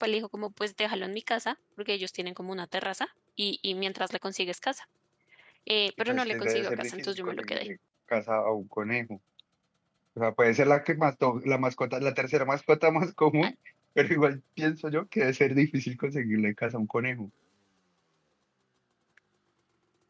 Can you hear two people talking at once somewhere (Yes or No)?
Yes